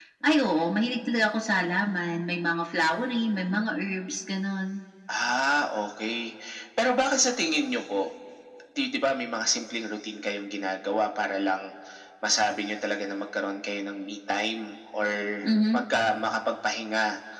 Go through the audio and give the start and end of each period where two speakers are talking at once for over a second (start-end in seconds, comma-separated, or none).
none